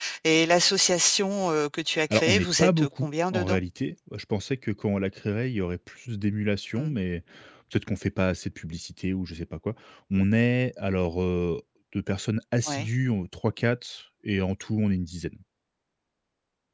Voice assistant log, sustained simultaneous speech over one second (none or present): present